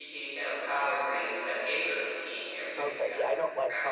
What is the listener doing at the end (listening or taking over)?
taking over